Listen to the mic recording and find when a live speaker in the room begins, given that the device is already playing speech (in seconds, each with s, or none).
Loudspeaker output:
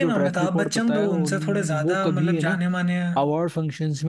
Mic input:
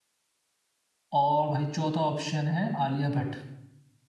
1.2 s